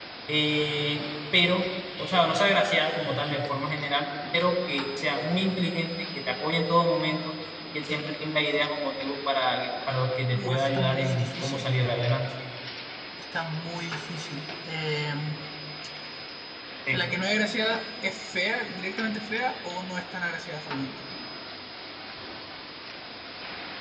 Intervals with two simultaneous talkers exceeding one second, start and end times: 10.3-11.8

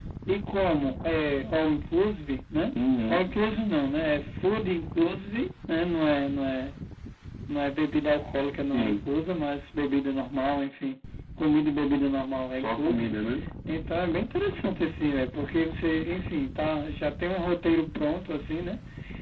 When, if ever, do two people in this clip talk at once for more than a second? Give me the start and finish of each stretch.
none

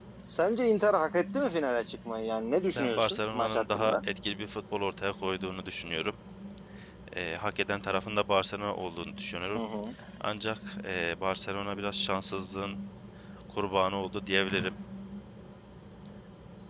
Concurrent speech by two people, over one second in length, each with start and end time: 2.7-4.0

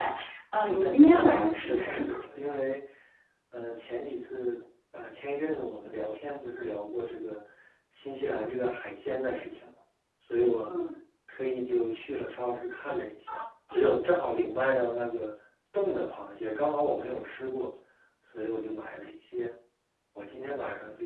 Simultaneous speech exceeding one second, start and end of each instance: 0.6-2.2

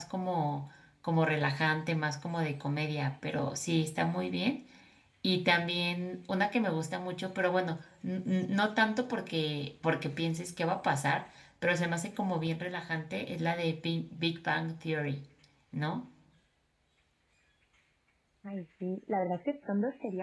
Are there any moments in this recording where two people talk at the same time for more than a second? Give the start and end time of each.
none

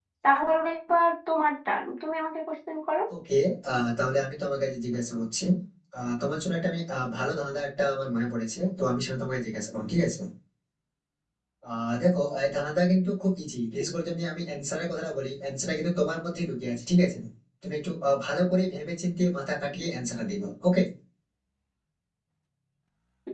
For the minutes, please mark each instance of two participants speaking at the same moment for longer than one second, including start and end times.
none

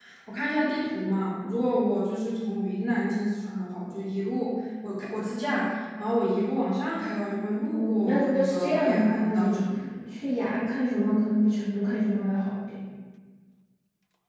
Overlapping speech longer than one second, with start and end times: 7.6-9.6

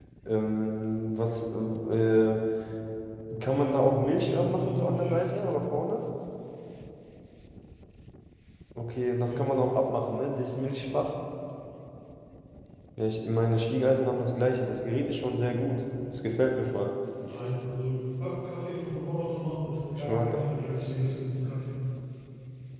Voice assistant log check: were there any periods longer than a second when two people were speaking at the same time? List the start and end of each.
3.5-5.4

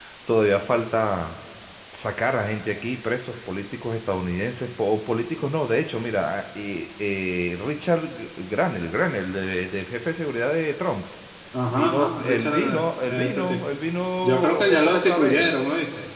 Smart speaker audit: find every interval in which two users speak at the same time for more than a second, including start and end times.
11.7-13.7, 14.2-15.5

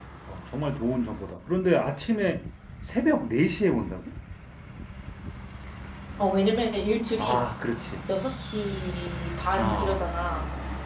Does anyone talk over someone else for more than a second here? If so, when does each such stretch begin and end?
none

